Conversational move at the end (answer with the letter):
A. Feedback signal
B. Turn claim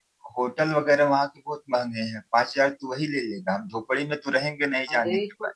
B